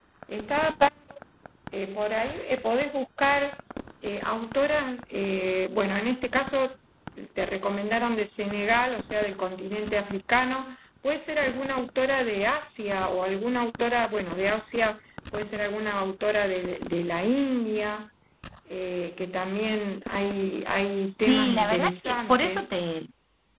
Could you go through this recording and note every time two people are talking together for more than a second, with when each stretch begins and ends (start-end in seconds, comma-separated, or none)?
21.1-22.8